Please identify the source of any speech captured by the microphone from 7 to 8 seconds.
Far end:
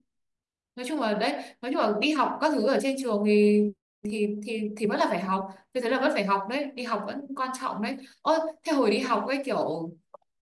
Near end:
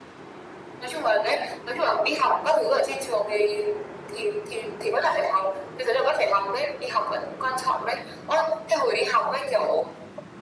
echo only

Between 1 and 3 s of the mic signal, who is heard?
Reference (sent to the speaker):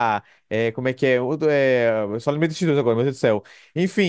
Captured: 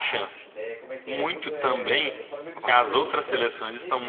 both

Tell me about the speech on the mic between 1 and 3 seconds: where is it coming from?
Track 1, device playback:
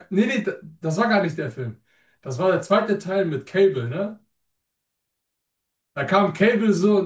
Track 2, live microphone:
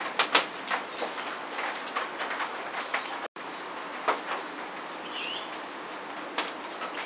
neither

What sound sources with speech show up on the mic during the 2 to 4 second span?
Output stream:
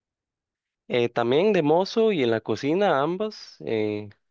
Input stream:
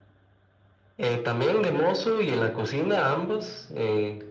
echo only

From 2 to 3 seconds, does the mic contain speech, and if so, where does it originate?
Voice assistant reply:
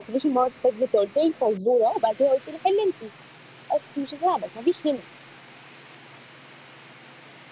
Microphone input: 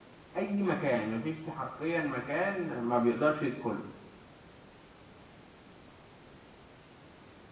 user only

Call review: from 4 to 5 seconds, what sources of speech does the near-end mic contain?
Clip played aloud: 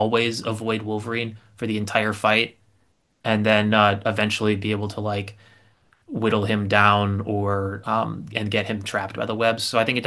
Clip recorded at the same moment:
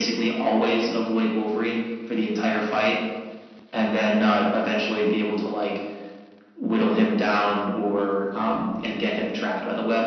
echo only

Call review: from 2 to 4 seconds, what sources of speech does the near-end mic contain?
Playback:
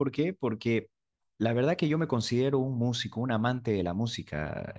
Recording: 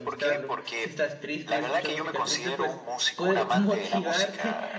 both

